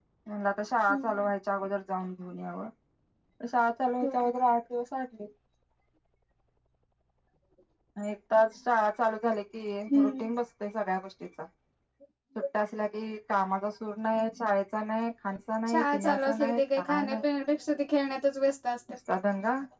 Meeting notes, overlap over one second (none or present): present